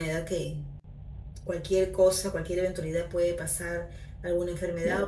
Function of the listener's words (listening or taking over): listening